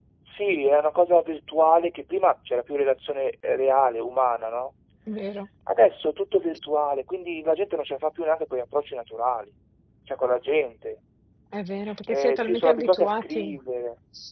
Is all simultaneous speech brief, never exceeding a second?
No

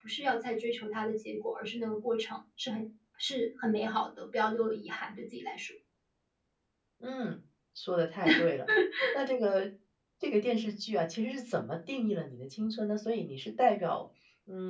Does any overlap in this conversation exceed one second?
No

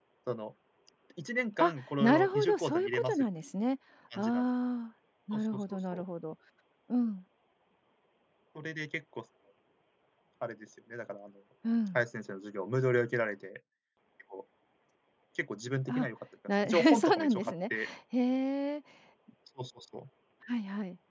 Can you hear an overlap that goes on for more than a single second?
Yes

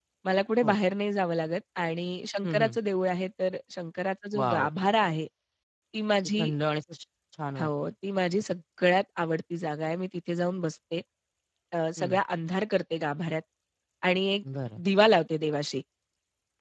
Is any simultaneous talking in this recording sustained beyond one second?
No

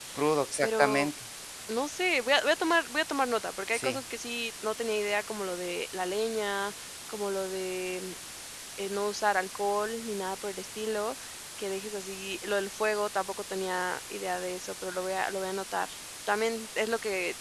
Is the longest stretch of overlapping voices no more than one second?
Yes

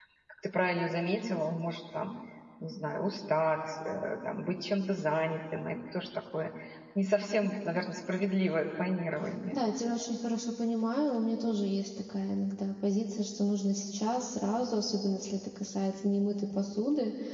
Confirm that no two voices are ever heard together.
Yes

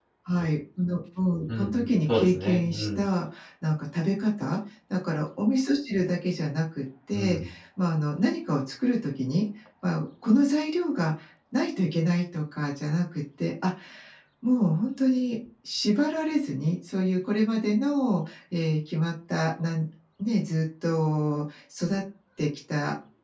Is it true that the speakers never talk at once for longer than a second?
No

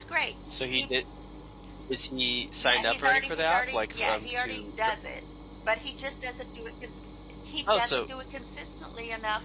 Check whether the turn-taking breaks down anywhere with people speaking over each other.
Yes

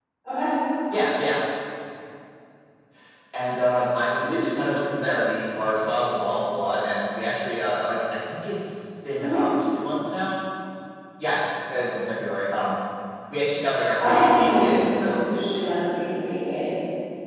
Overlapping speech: Yes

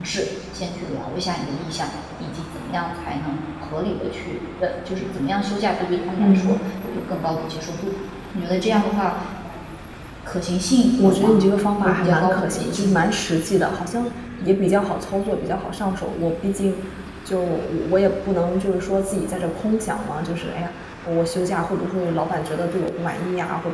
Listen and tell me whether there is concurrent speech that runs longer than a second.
Yes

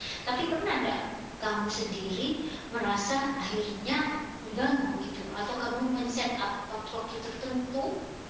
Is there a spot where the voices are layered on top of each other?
No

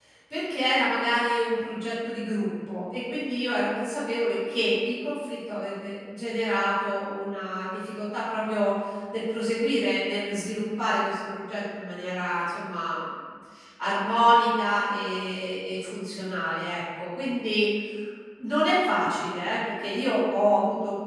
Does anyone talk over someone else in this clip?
No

